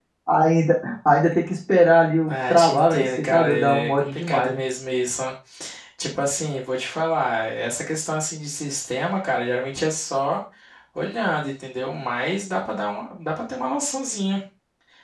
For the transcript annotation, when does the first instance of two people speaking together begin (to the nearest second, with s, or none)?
2 s